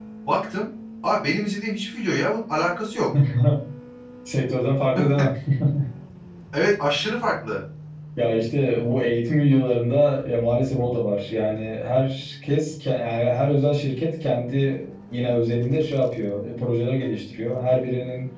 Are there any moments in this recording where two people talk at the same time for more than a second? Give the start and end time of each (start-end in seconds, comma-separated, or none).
none